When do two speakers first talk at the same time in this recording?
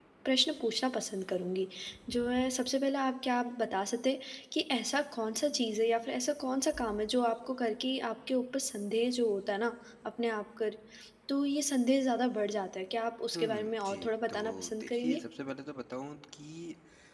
13.3 s

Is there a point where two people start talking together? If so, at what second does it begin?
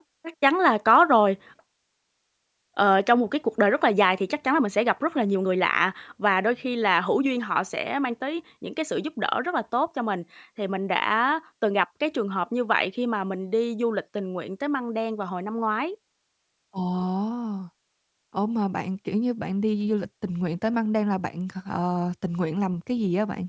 none

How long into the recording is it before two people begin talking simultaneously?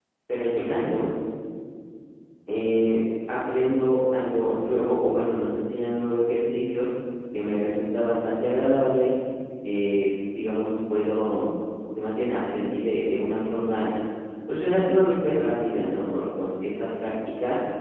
none

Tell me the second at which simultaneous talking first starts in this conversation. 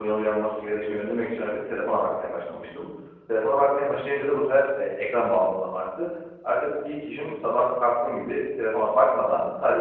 none

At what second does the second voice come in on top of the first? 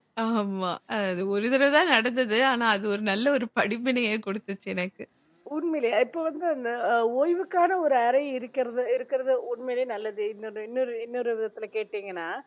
none

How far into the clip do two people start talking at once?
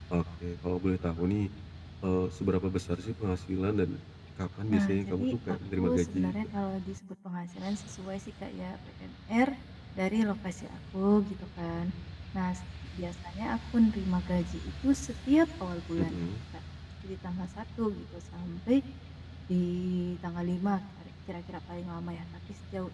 4.7 s

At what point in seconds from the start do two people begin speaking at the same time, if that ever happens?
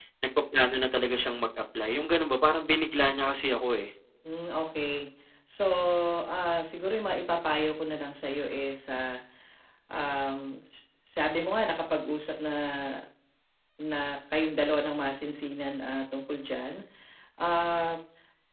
none

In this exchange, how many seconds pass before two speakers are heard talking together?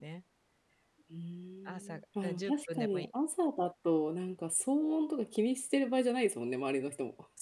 1.7 s

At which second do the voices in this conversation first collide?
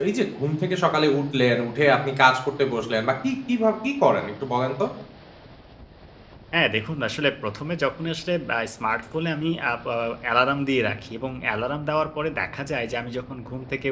none

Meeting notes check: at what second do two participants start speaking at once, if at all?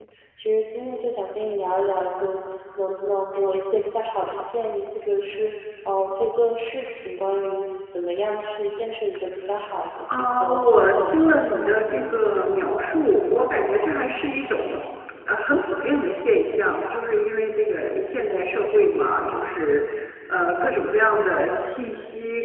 10.1 s

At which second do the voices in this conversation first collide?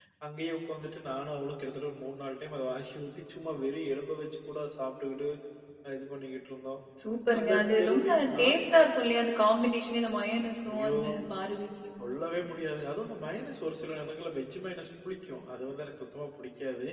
7.4 s

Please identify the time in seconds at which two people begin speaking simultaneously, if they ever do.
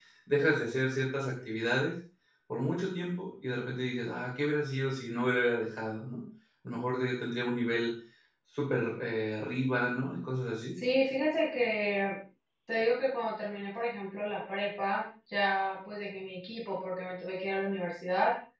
none

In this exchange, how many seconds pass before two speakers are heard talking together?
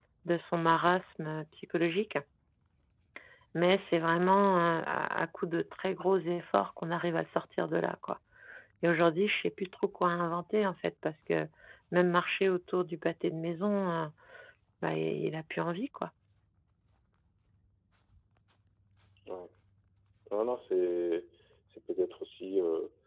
none

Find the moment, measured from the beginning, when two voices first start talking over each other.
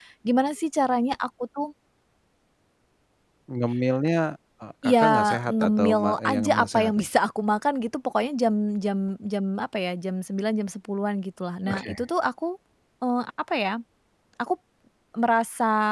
4.8 s

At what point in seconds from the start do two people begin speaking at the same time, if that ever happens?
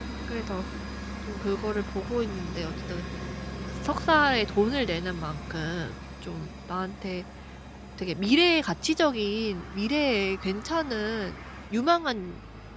none

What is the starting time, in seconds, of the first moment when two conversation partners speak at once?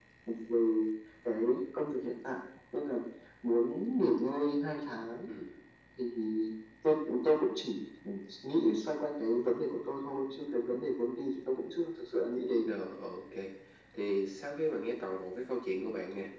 none

